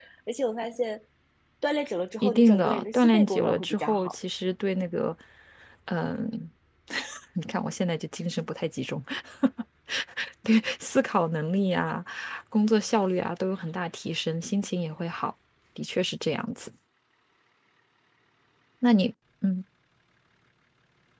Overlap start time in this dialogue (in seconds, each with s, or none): 2.2 s